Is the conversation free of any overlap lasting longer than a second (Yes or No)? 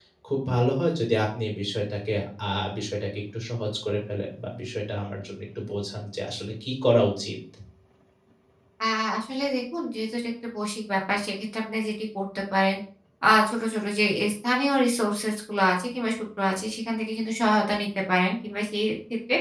Yes